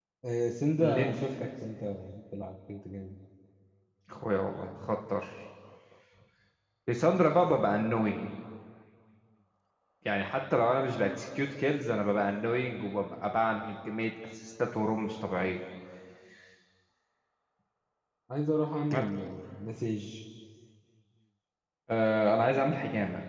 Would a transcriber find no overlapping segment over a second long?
Yes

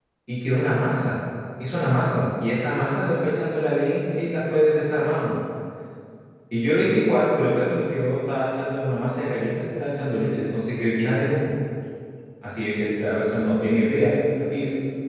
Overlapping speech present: No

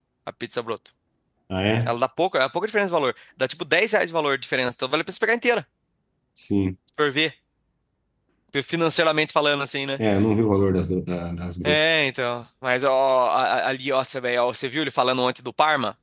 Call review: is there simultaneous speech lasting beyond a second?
No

